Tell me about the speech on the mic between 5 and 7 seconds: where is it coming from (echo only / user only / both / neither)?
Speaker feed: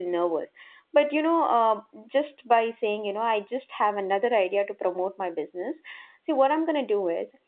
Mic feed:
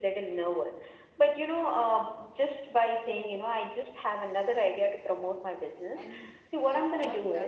both